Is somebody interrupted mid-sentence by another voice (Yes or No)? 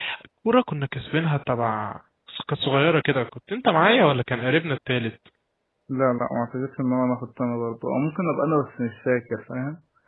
No